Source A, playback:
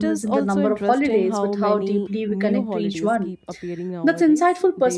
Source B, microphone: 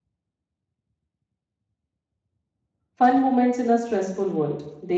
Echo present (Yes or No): No